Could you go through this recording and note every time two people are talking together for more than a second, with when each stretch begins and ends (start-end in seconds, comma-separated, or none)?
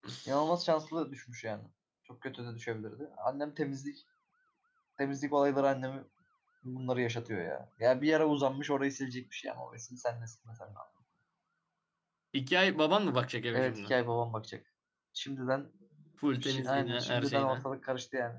16.4-17.6